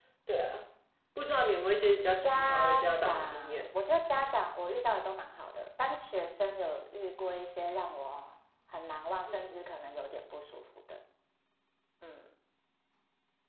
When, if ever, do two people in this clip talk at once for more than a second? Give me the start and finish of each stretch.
2.2-3.7

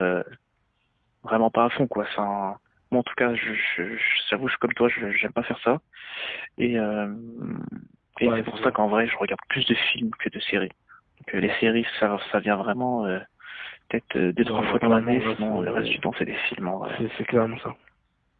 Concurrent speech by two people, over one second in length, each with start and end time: 14.4-16.0

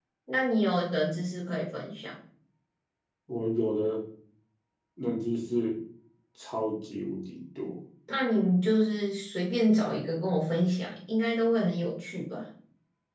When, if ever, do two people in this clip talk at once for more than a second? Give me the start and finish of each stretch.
none

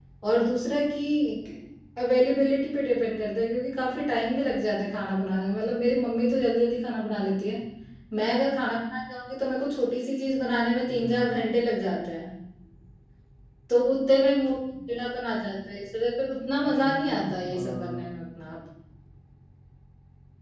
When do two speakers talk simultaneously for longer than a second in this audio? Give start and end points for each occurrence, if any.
16.6-18.2

